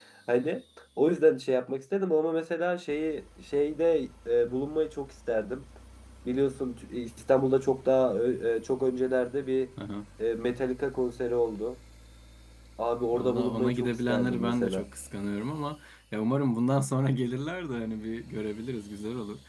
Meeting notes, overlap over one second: present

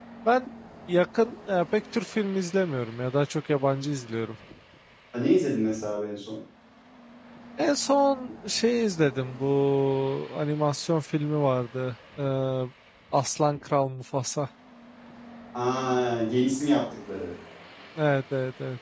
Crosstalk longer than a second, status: none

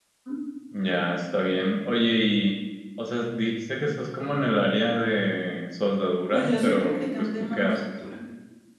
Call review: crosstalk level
present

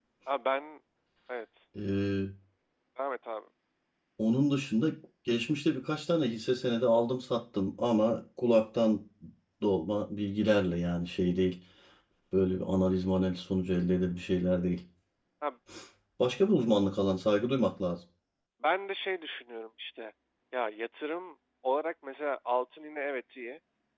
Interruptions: none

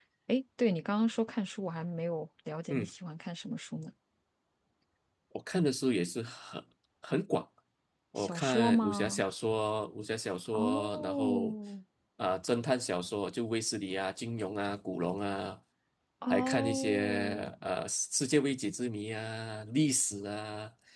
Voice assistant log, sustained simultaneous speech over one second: present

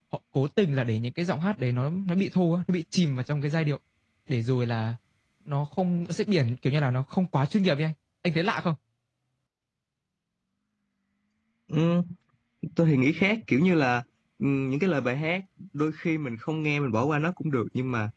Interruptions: none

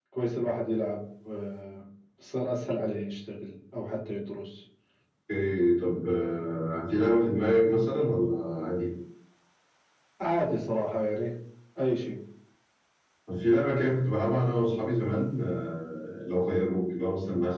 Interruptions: none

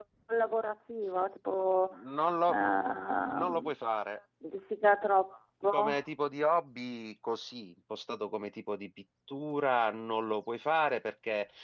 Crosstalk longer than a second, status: none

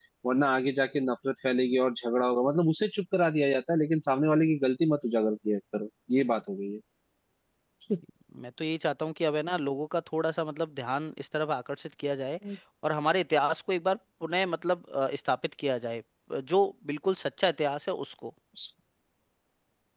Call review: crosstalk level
none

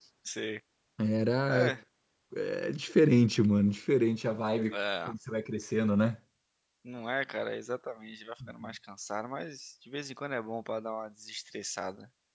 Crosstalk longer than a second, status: none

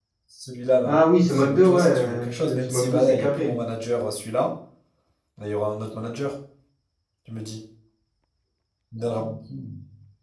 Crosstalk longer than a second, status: present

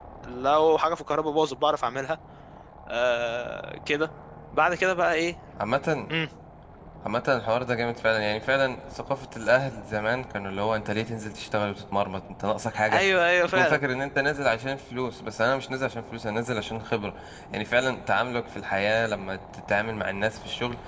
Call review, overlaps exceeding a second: none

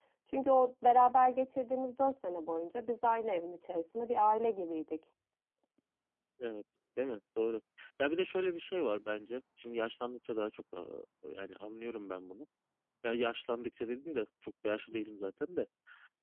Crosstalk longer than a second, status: none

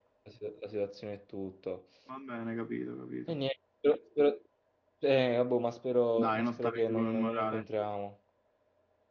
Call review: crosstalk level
present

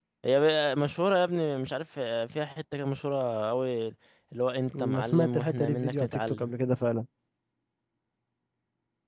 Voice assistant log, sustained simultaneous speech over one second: present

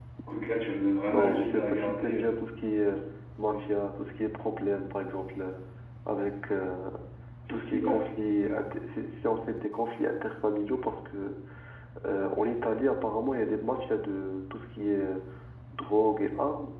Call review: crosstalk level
present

